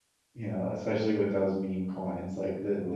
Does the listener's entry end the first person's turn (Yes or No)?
No